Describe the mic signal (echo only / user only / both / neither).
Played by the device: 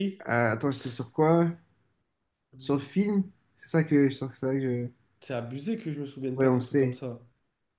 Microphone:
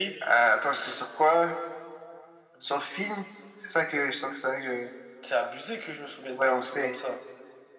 echo only